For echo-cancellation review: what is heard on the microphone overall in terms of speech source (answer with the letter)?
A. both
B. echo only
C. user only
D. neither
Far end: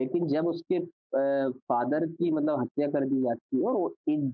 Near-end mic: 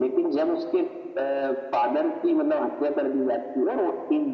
B